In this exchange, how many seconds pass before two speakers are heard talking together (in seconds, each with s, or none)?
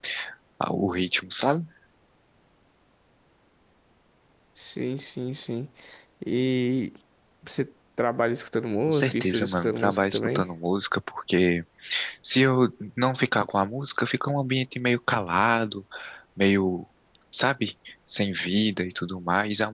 8.9 s